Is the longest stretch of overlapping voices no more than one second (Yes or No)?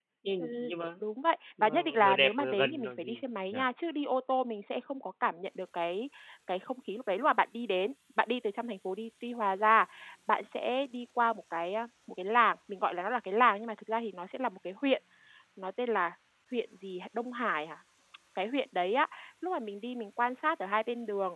No